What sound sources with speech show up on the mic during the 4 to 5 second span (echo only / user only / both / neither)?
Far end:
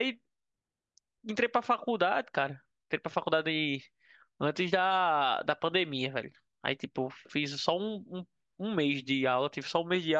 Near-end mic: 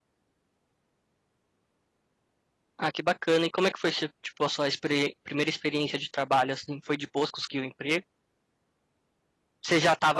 user only